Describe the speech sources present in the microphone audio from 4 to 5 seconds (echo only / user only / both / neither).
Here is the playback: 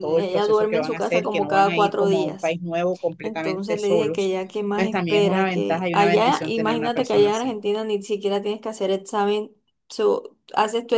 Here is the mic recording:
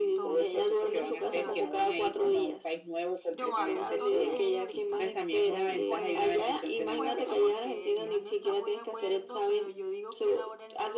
both